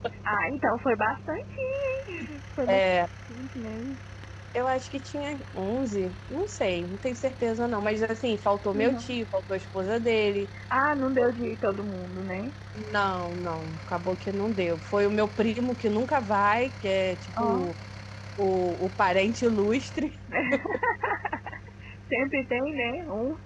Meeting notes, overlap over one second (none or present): none